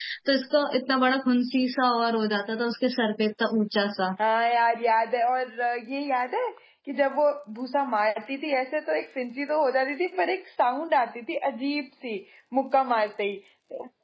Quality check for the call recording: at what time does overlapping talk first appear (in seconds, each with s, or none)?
none